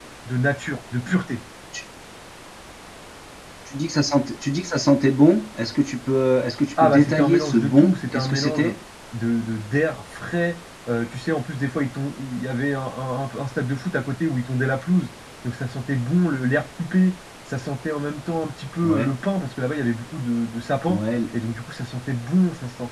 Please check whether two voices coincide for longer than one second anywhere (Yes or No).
Yes